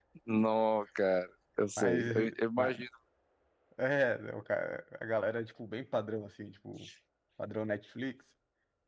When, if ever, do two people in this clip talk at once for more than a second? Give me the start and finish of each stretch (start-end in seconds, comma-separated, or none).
none